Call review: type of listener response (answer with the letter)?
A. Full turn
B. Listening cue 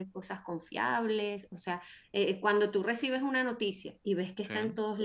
B